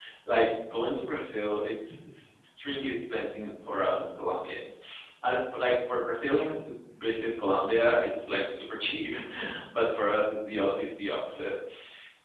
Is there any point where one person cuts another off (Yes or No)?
No